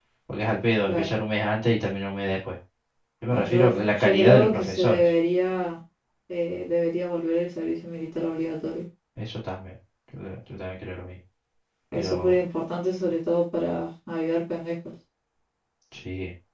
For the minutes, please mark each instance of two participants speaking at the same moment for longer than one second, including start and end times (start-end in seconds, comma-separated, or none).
3.3-5.1